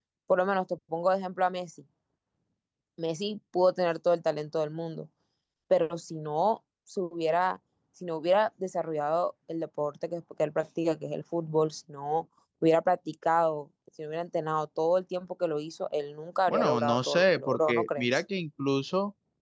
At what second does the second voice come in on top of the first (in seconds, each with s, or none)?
16.5 s